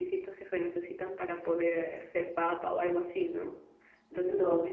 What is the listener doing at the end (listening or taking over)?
listening